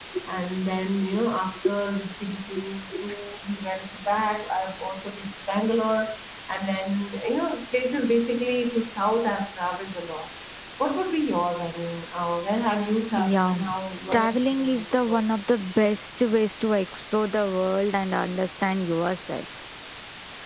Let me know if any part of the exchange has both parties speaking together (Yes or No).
Yes